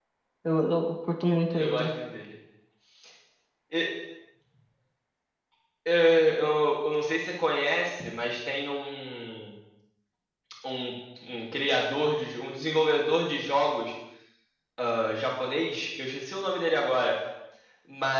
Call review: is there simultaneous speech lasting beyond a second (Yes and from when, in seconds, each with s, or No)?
No